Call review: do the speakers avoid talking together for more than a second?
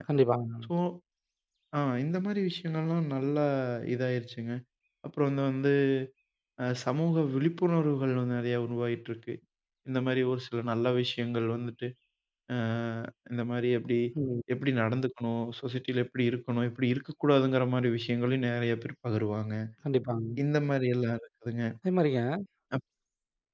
Yes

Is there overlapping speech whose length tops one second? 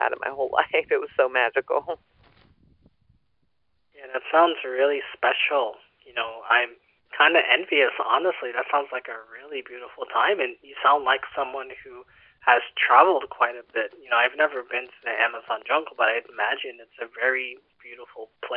No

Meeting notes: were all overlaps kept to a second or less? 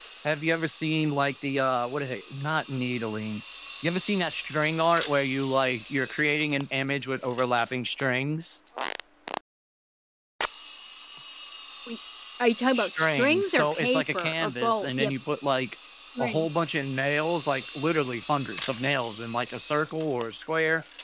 No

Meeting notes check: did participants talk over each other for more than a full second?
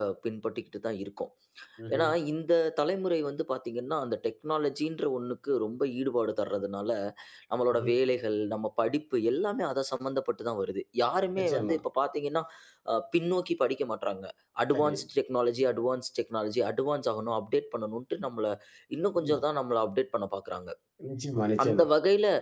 No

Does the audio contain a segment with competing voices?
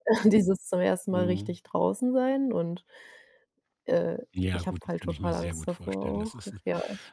Yes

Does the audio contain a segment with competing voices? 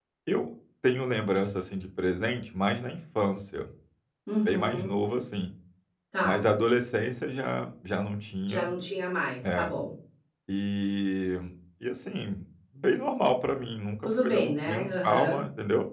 Yes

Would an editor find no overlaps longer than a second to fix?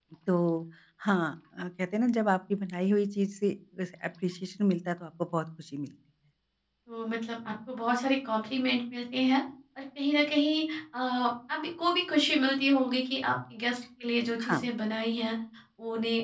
Yes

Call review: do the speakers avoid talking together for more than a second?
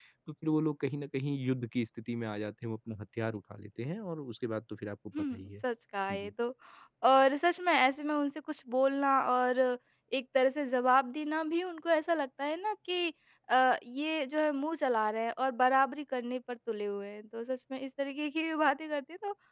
Yes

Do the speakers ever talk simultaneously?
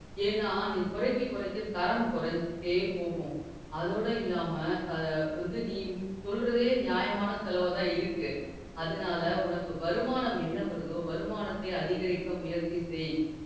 No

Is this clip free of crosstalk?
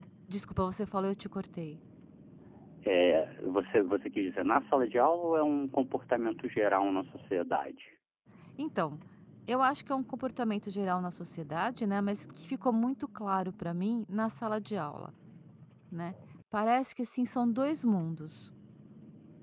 Yes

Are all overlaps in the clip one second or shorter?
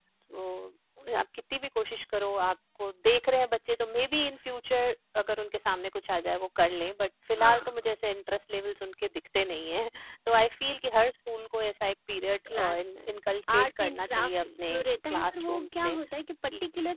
No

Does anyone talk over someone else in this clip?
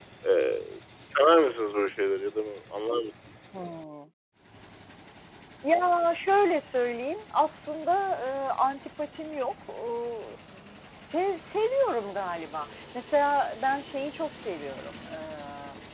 No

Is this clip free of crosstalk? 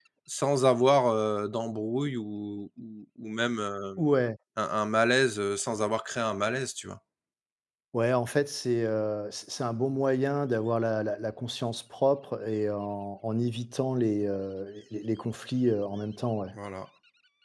Yes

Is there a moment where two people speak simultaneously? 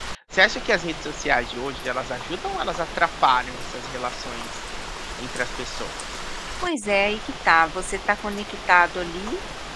No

